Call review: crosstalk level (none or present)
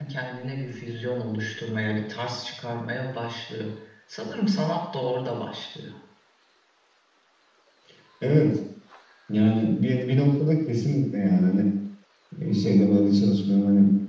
none